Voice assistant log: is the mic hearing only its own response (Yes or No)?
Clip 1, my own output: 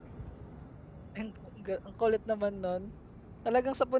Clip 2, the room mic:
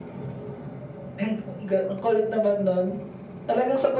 Yes